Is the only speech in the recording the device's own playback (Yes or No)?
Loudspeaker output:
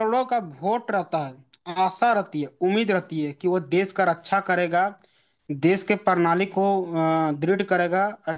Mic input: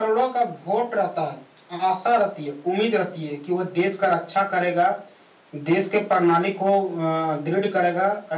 Yes